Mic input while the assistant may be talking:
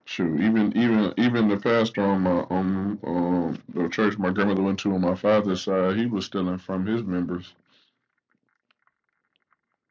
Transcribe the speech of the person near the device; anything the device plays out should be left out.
none

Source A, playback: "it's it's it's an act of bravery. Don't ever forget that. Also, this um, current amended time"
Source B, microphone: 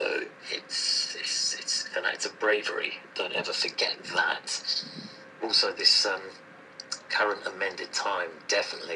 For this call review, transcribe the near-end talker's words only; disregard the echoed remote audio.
none

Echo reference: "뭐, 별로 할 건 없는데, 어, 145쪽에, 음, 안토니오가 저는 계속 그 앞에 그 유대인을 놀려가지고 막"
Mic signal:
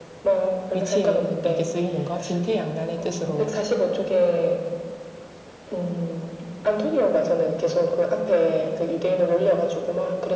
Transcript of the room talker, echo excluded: 위치에 이렇게 쓰이는 거 진퇴양난의 뜻으로

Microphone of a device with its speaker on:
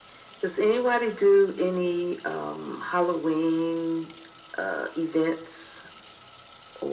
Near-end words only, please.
none

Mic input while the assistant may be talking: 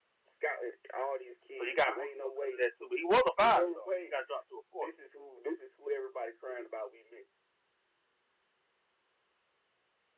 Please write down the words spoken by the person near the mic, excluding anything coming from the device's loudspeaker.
So he got boosted up because of that too. But he was a five star. He got dropped to a four. though.

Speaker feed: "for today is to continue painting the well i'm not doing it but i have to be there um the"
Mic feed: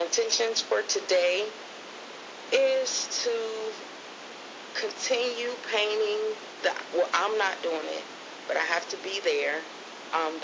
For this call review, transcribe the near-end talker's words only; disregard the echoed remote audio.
none

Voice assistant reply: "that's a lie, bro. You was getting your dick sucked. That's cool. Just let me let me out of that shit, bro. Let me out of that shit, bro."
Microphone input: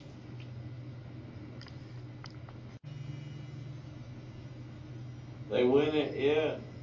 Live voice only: They winning. Yeah.

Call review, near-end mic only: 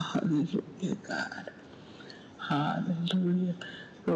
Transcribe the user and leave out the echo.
none

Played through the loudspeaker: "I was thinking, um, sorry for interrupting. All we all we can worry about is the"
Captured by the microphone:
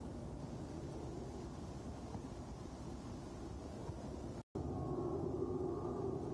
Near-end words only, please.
none

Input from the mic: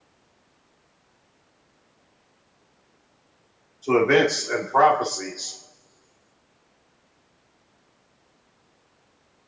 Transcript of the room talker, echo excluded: to events and prophecies,

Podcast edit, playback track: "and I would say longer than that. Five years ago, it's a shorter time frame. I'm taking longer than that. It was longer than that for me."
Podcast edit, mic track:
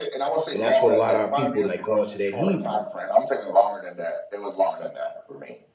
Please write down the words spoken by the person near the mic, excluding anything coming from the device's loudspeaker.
And that's what a lot of our people like going to that Hebrew.

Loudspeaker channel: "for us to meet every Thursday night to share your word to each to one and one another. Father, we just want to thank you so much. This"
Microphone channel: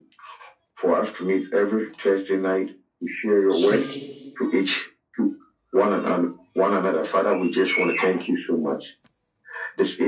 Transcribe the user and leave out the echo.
speak.

